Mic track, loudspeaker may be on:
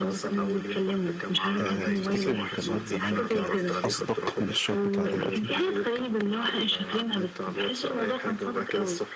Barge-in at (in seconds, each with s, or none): 1.6 s